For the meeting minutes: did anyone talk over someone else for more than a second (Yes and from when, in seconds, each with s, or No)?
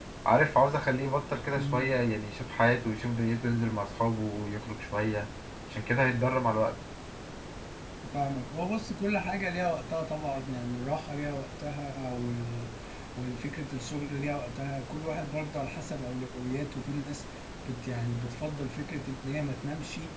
No